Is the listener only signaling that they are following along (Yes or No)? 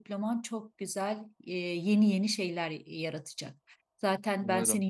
Yes